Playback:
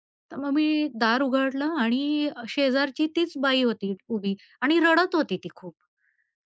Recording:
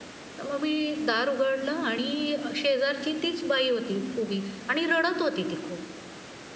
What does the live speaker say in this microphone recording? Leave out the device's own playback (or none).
none